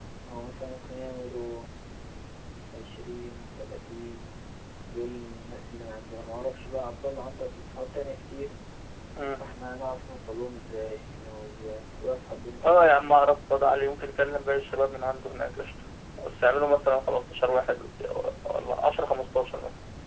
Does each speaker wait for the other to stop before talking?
Yes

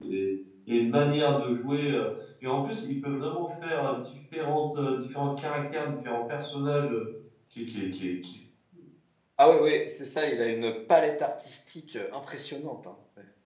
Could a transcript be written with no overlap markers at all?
Yes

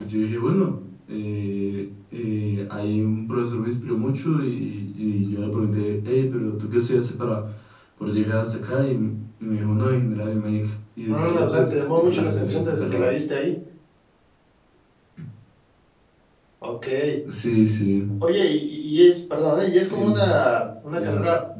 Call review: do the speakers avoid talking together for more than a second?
No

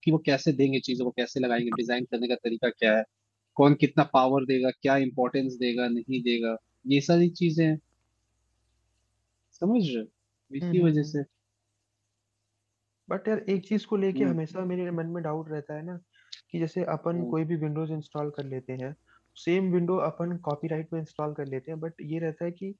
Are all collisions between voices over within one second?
Yes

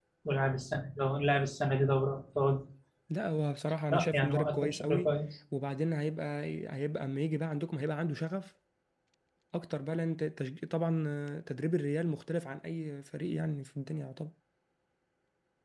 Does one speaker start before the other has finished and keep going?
Yes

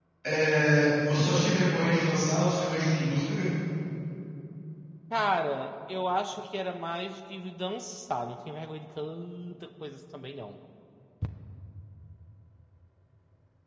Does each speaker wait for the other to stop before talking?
Yes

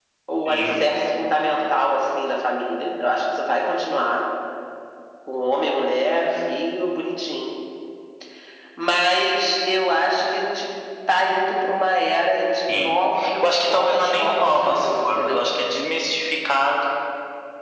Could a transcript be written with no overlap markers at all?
No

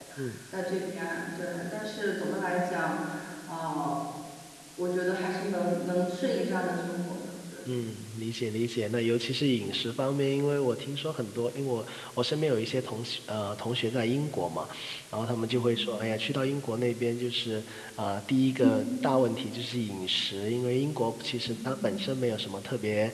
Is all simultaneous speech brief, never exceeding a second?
Yes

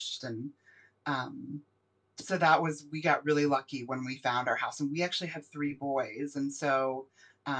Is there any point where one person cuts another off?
No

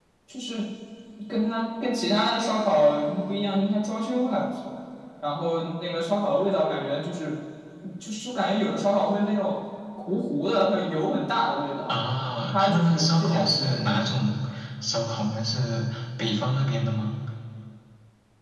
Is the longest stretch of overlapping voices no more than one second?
No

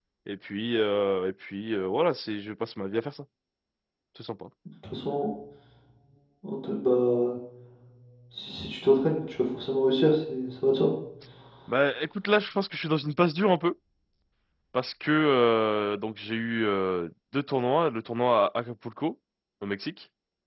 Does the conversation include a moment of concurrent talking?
No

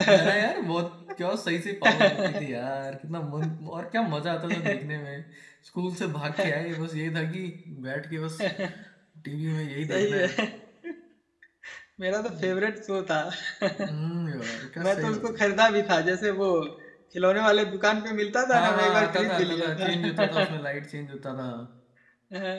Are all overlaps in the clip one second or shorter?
No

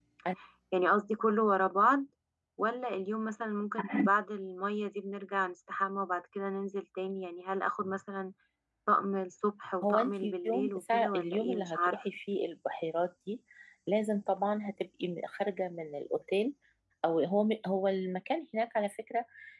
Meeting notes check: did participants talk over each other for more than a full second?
Yes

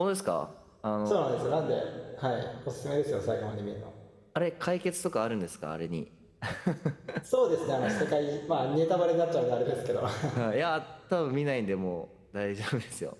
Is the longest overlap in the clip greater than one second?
No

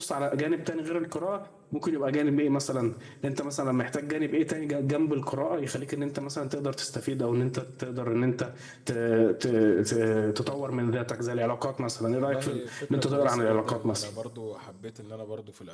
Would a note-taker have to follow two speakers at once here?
Yes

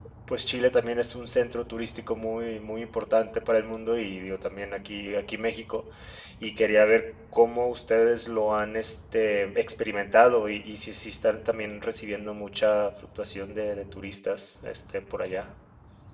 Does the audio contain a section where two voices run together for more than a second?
No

